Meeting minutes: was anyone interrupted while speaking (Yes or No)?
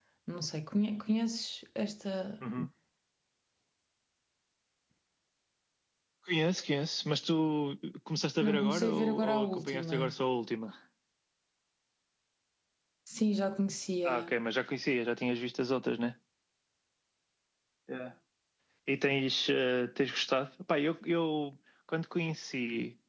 Yes